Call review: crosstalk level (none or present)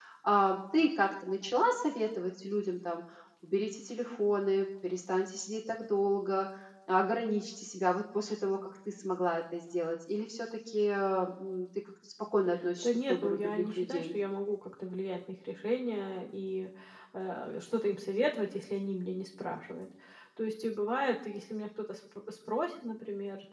present